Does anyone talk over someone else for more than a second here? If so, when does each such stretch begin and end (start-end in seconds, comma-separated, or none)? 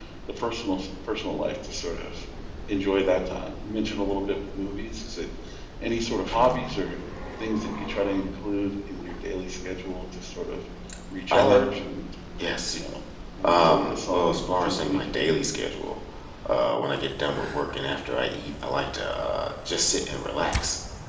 13.4-15.3